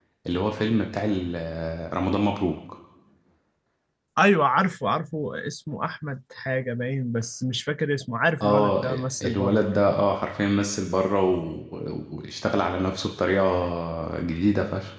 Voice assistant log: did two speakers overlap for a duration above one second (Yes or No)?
No